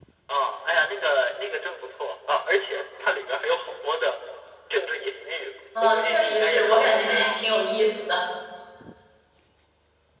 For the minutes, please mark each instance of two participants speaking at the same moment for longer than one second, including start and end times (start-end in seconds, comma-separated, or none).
5.8-7.4